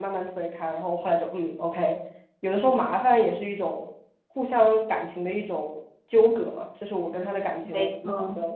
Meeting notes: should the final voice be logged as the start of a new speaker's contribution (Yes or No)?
No